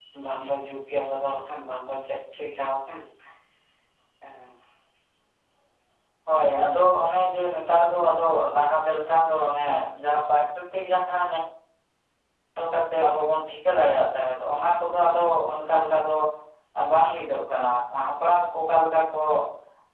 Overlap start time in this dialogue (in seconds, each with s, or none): none